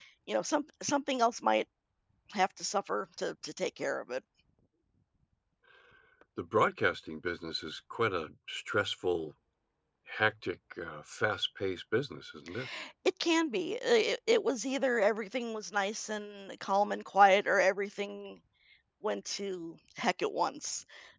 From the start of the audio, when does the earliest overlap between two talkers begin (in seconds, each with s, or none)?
none